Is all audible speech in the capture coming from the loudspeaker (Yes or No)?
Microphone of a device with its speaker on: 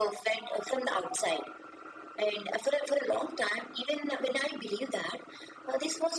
Yes